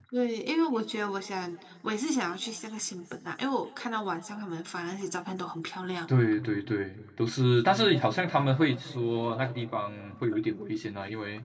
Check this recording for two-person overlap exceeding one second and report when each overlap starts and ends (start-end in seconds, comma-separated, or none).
none